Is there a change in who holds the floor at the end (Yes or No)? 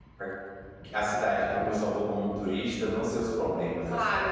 Yes